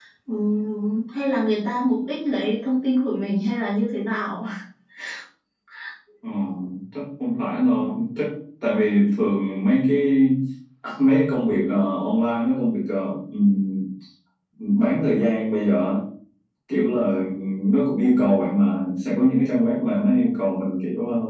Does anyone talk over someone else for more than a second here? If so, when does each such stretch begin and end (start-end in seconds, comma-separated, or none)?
none